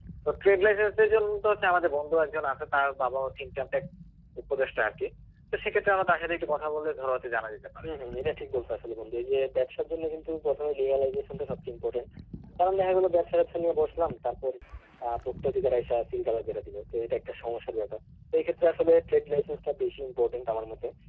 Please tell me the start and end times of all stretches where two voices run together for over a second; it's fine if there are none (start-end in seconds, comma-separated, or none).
none